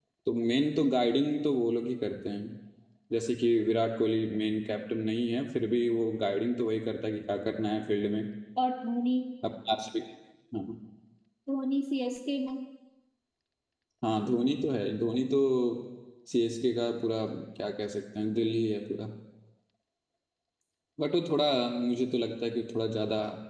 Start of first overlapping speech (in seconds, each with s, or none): none